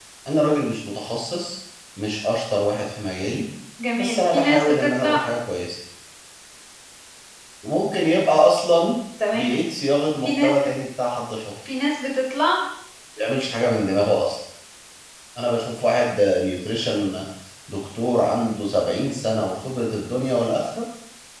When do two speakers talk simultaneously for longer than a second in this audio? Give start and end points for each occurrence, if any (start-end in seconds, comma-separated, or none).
4.0-5.2